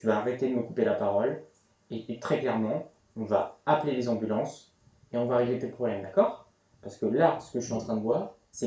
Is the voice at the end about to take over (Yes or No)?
No